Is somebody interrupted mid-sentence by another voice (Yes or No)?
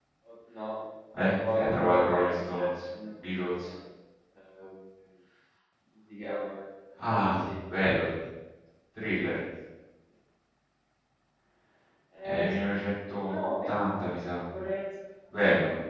Yes